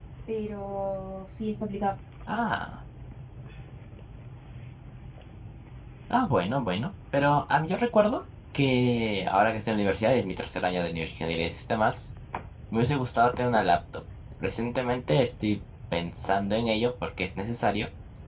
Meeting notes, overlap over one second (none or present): none